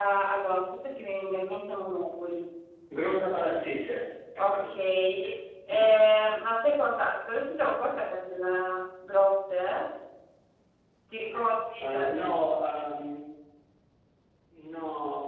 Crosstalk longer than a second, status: none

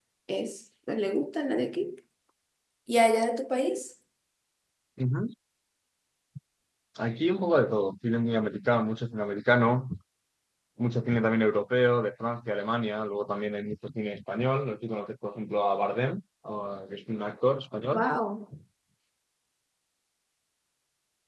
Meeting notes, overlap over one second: none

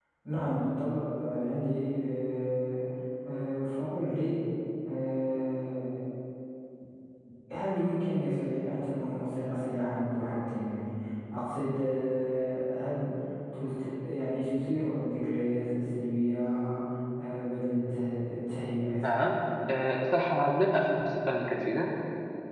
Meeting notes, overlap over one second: none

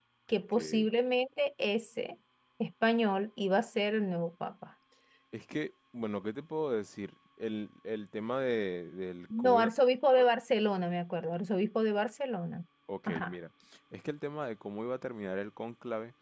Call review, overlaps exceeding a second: none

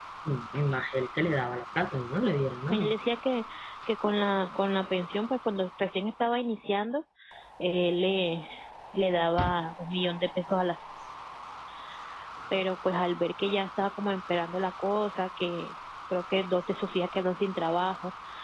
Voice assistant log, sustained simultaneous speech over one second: none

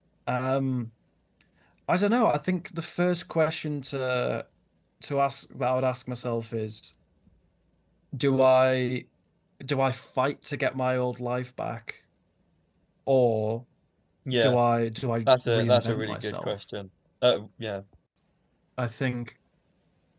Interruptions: present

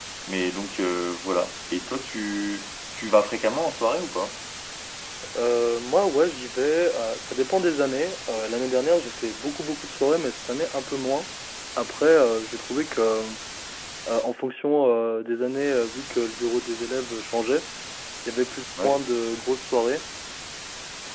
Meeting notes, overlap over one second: none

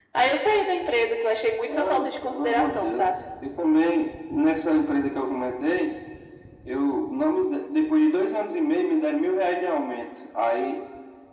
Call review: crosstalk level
present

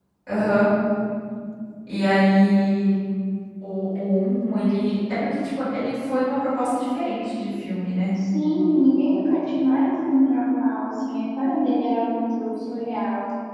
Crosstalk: none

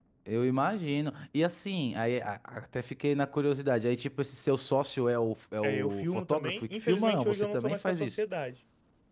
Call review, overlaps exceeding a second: present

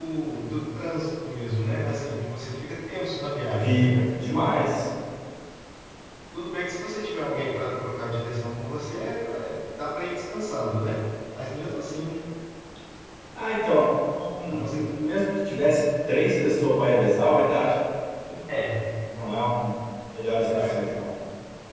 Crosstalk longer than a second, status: none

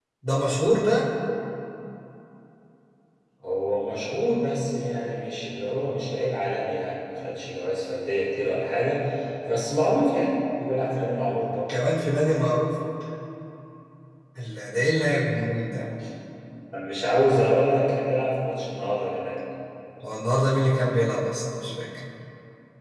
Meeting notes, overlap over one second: none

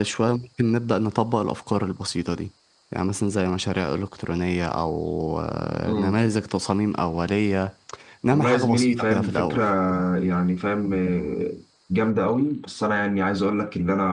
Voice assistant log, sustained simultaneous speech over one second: present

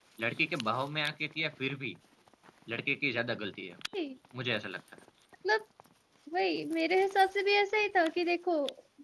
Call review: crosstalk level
none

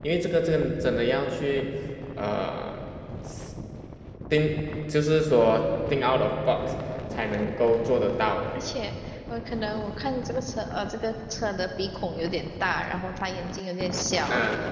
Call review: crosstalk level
none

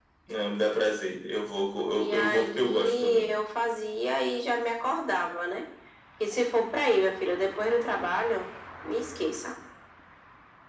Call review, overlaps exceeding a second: present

